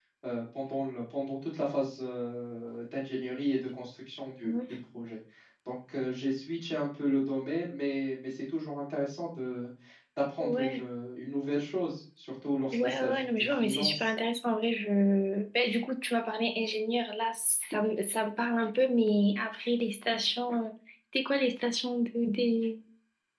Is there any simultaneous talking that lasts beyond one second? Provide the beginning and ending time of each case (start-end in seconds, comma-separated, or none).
12.7-14.1